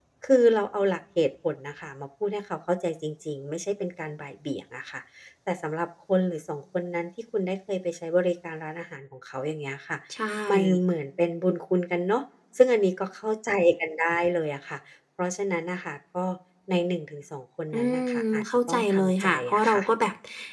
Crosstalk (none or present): present